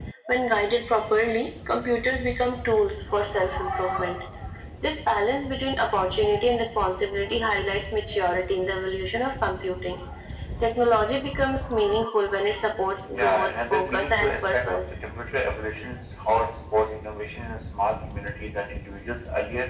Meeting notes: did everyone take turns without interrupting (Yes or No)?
No